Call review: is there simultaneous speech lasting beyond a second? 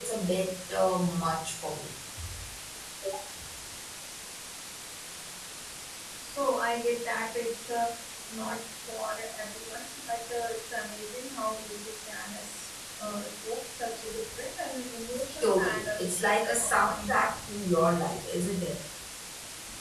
Yes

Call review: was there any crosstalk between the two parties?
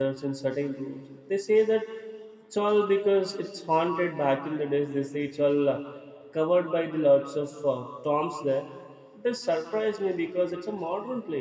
No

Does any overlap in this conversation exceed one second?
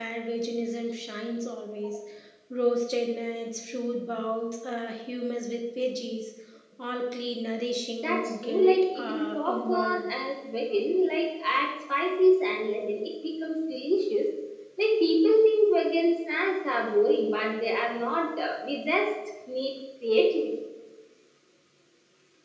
Yes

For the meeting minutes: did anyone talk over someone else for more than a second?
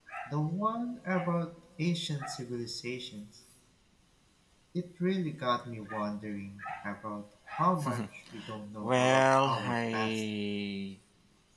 Yes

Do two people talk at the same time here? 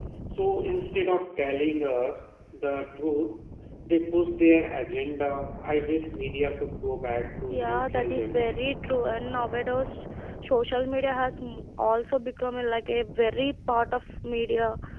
Yes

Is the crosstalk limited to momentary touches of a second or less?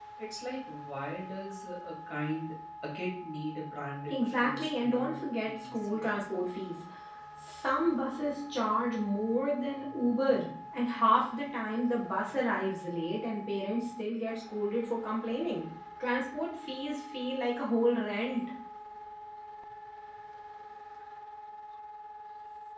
No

